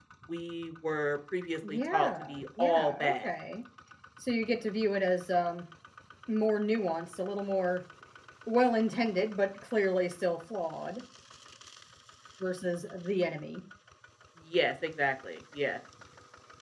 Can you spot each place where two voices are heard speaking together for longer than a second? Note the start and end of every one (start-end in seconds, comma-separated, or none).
1.7-3.3